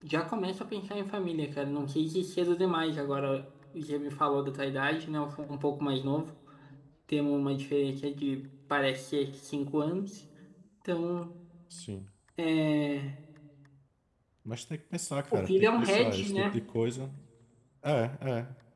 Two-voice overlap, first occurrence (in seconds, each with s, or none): 15.3 s